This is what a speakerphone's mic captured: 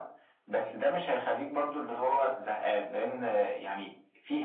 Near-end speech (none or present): none